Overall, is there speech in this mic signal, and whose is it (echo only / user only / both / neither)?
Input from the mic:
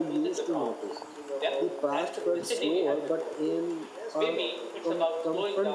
both